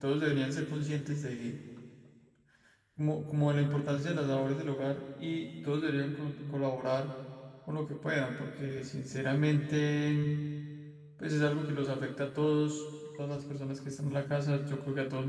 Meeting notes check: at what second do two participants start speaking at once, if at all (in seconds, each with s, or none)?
none